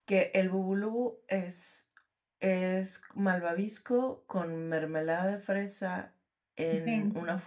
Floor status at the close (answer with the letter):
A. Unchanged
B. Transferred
A